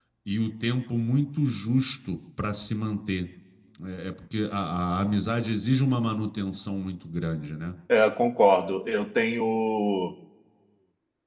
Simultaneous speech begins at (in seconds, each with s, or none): none